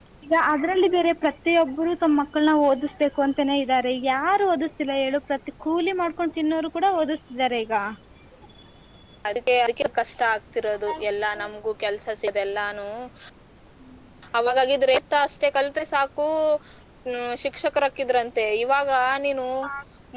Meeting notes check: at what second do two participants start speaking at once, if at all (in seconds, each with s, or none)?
none